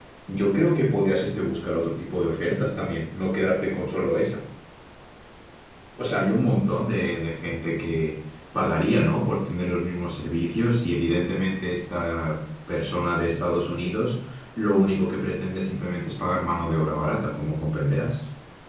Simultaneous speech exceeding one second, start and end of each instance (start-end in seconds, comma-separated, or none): none